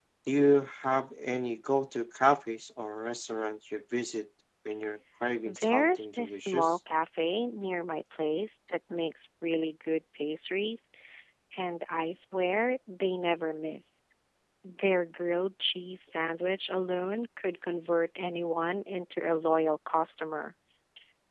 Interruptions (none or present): present